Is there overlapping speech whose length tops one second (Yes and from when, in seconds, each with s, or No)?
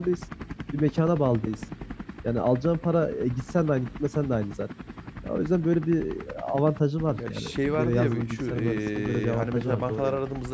Yes, from 7.1 s